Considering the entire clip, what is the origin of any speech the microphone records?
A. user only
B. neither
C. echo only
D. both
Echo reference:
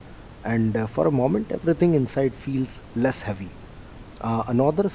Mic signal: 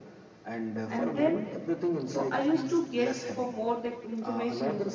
D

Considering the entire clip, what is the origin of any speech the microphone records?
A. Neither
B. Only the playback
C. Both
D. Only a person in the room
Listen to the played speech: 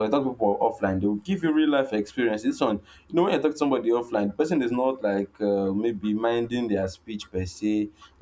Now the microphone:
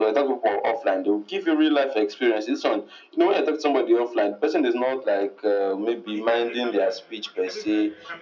C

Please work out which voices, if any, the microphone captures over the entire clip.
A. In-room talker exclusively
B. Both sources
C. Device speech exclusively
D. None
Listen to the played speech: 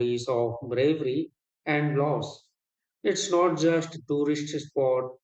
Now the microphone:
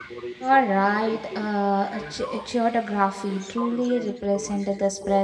B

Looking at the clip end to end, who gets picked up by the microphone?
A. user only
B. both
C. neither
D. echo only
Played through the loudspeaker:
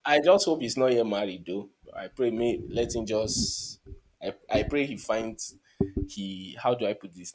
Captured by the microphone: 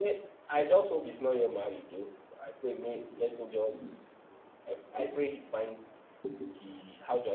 D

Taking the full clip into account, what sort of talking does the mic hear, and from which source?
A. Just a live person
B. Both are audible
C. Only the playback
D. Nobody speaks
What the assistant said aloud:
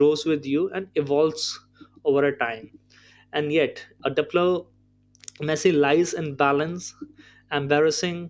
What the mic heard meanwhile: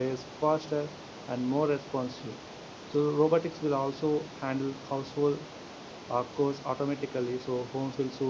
A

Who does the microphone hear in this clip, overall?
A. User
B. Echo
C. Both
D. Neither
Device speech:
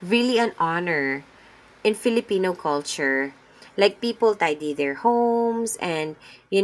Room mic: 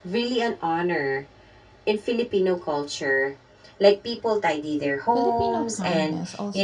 C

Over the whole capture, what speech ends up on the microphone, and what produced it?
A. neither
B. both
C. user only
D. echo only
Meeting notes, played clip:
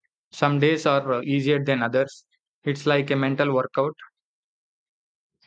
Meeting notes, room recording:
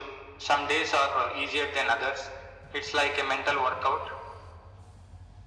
D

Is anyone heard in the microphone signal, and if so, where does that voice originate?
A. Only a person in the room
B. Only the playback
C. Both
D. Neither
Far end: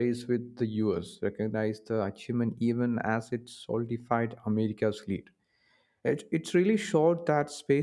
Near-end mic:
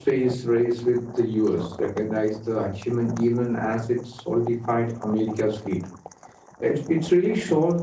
B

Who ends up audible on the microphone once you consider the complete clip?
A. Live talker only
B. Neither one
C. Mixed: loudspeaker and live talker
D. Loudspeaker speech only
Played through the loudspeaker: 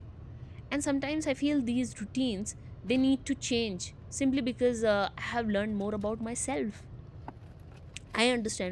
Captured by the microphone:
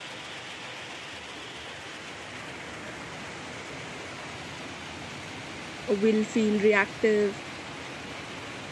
A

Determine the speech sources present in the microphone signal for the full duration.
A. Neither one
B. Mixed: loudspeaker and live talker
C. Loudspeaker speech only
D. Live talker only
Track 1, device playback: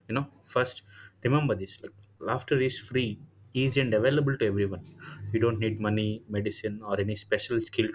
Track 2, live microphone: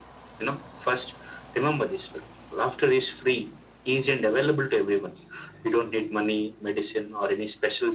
C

